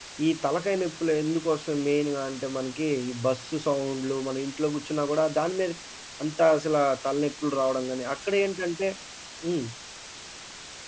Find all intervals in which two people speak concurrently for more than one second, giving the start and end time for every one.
none

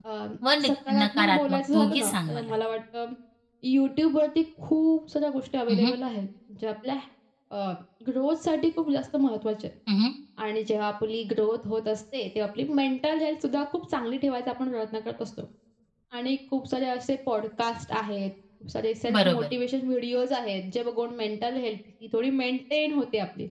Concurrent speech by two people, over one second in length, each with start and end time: 1.0-2.5

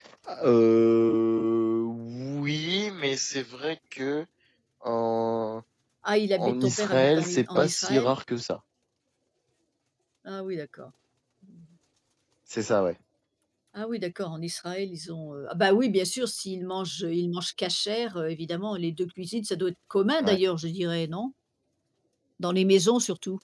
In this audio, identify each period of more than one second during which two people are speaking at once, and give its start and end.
6.3-8.1

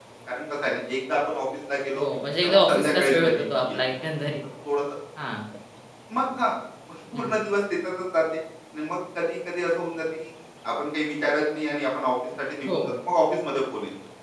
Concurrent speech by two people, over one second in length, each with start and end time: 2.4-3.8

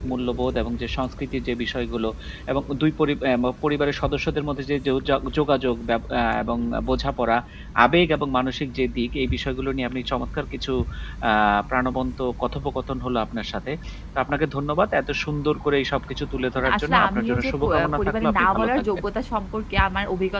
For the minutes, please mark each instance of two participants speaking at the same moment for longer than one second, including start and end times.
16.6-19.0

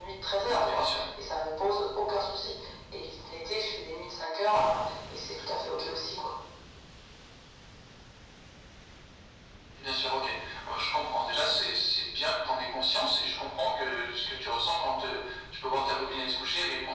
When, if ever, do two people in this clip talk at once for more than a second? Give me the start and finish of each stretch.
none

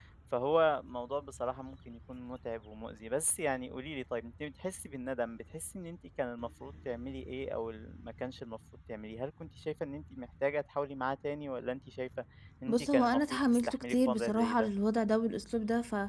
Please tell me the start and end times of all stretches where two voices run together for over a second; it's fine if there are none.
12.7-14.7

